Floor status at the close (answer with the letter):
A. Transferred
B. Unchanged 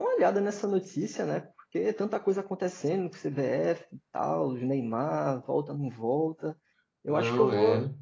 B